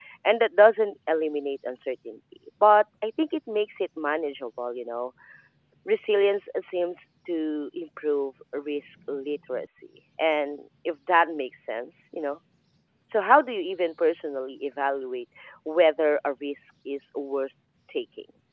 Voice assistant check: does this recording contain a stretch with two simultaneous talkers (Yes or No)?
No